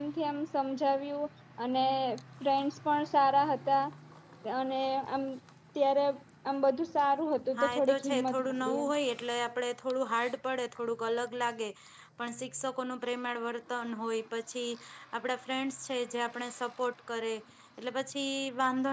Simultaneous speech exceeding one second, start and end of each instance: 7.6-8.9

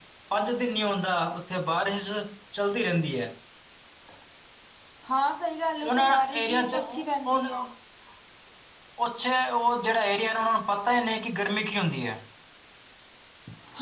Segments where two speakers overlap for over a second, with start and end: 5.8-7.6

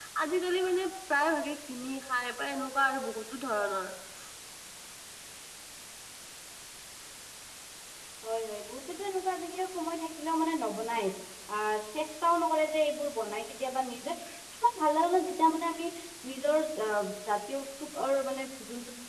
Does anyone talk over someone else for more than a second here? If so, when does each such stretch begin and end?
none

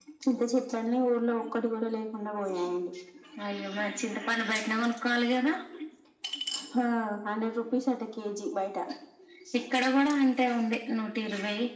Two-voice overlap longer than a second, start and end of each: none

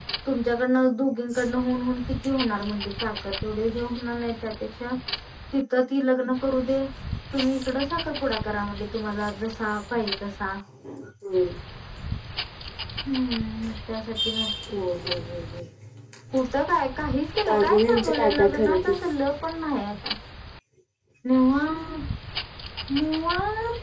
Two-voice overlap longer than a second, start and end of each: 17.4-18.9

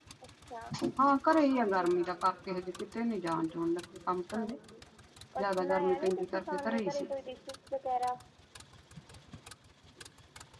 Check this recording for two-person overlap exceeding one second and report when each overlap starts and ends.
5.4-7.1

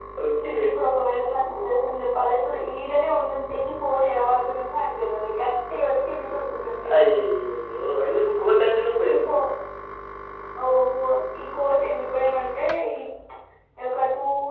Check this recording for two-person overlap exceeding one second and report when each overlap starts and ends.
none

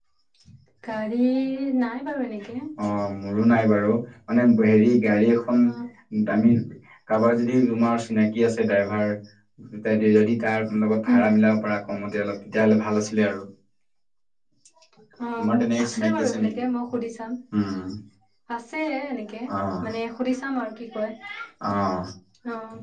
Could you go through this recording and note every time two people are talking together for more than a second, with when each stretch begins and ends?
15.4-16.6

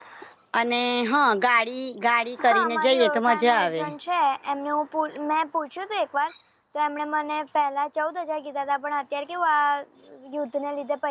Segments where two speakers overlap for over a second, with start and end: 2.5-3.8

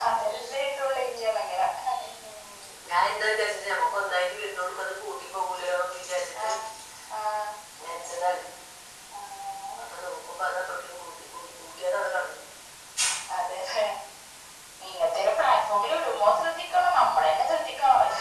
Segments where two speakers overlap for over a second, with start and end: none

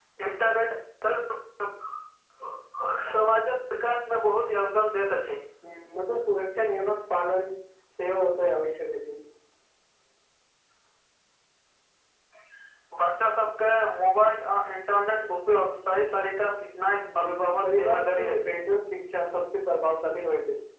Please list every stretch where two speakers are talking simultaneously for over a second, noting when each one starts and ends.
17.2-18.6

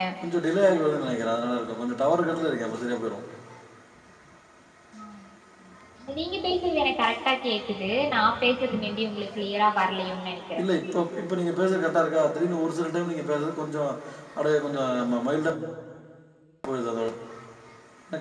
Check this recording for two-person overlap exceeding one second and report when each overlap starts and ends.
none

